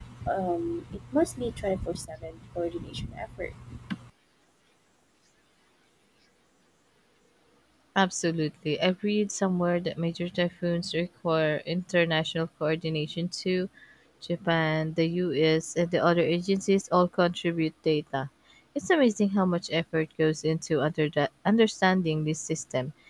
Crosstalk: none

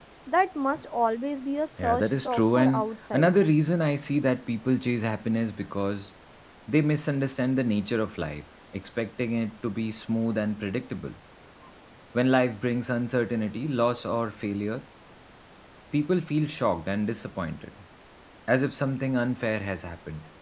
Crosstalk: present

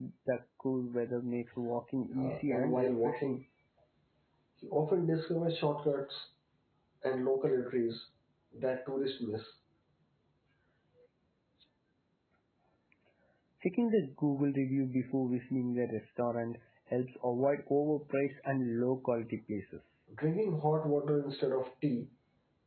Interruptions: present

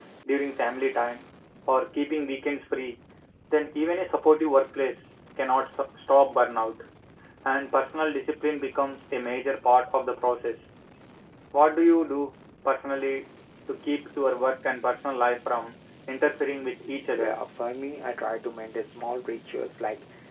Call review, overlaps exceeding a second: none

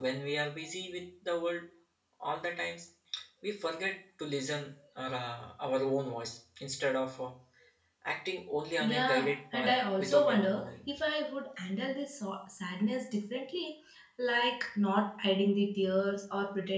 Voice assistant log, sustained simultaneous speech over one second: present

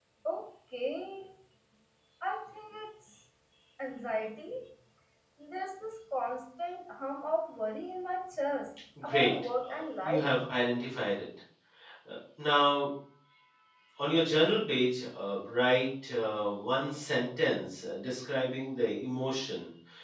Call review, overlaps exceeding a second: present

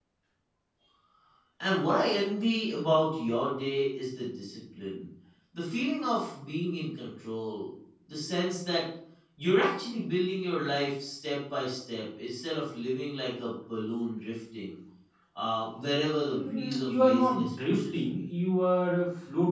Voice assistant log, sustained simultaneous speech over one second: present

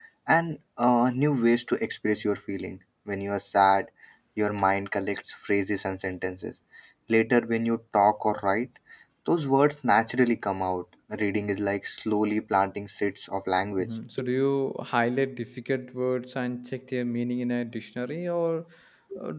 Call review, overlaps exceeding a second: none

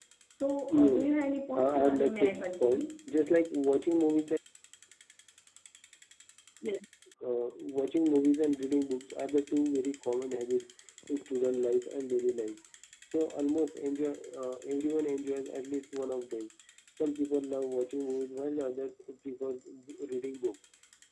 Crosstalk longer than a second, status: present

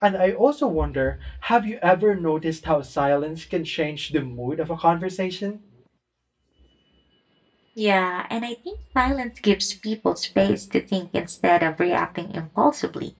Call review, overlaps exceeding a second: none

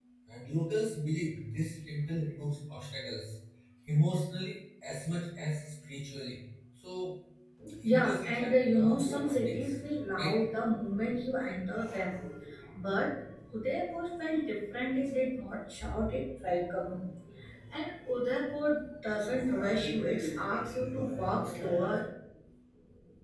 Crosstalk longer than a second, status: present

